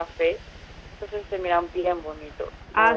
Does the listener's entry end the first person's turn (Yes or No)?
Yes